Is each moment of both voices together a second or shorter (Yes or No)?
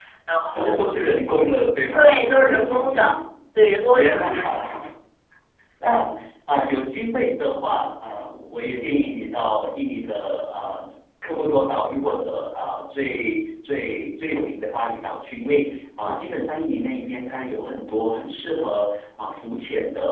No